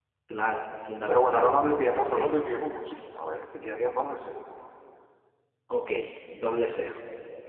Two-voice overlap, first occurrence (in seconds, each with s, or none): 1.1 s